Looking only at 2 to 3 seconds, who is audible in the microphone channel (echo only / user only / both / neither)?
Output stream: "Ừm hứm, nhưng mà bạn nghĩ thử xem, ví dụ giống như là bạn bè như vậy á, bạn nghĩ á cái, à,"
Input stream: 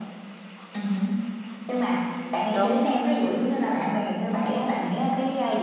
both